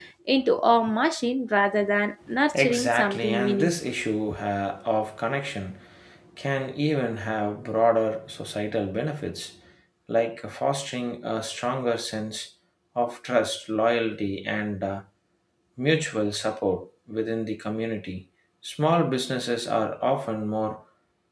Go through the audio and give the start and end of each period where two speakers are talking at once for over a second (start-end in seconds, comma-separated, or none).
2.5-3.9